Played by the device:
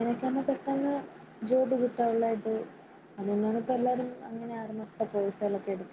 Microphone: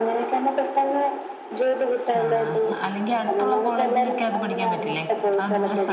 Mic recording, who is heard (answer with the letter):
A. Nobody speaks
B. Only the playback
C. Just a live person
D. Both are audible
D